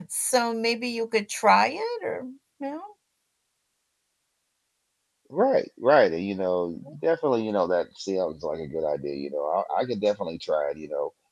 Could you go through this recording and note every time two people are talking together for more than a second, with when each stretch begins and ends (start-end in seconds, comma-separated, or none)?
none